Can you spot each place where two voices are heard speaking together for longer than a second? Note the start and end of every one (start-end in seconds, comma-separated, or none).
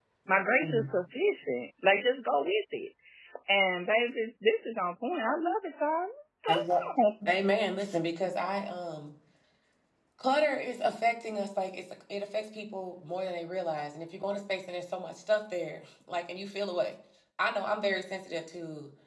none